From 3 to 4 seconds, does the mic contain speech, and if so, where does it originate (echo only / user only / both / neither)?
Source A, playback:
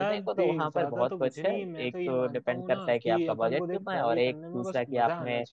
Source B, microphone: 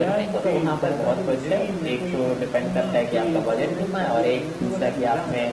echo only